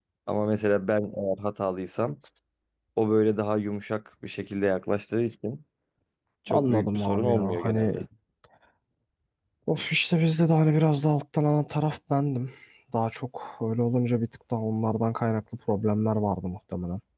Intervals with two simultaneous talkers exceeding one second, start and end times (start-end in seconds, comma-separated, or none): 6.5-8.0